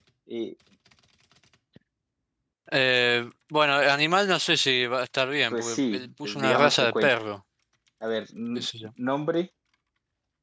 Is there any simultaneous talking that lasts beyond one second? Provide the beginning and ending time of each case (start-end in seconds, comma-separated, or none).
5.5-7.1